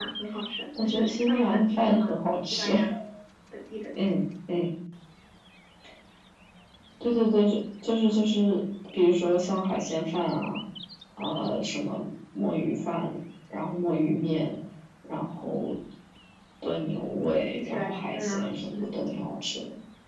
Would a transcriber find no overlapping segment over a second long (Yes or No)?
No